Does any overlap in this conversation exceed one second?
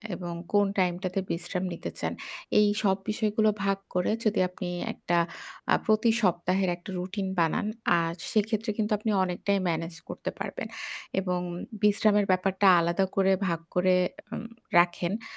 No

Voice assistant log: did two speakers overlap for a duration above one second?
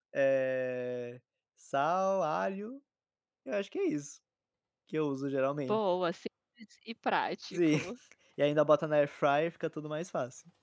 No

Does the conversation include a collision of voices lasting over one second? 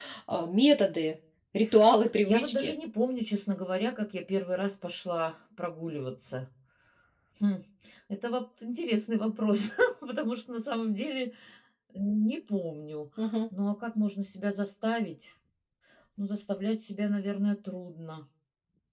No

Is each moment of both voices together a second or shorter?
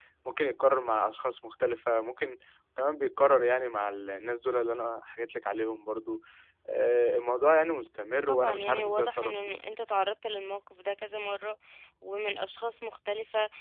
No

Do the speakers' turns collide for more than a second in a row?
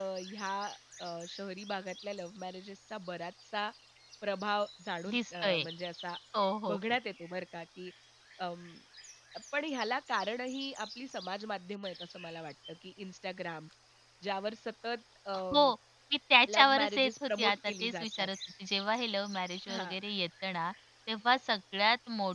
Yes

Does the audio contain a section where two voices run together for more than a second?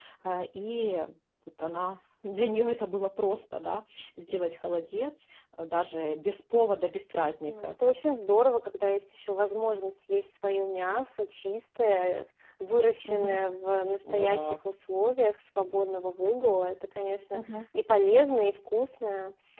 No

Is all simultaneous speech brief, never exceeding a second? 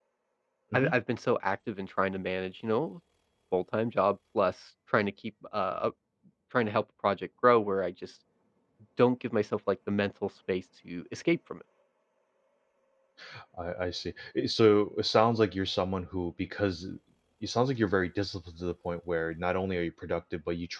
Yes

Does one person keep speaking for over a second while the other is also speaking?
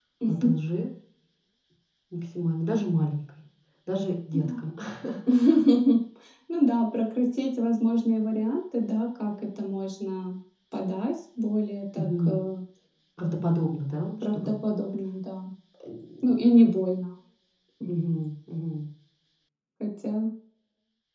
No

